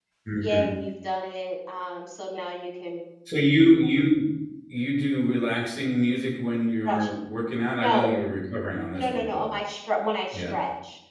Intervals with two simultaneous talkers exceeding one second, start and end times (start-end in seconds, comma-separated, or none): none